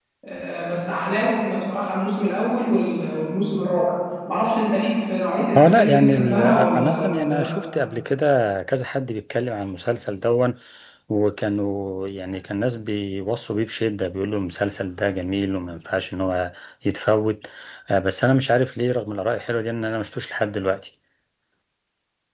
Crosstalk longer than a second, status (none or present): present